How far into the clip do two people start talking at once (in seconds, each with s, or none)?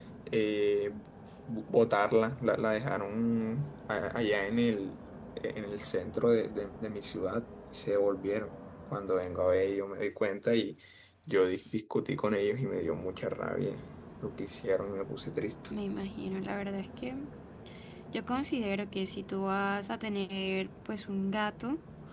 none